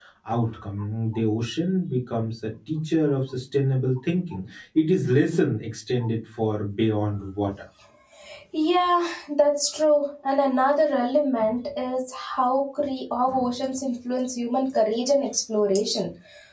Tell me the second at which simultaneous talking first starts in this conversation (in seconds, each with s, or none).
none